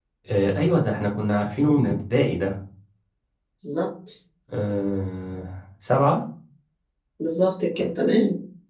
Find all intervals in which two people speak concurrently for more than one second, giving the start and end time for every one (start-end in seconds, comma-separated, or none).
none